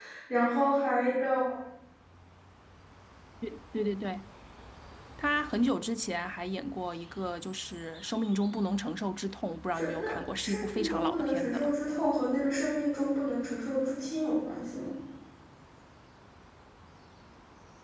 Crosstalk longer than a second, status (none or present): present